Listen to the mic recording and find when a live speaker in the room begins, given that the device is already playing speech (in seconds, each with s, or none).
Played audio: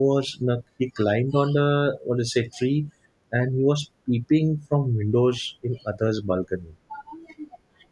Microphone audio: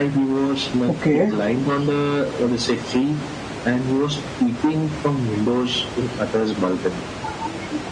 0.9 s